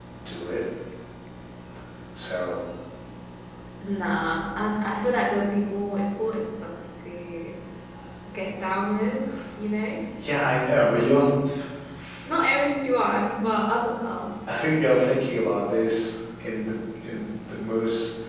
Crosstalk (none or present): none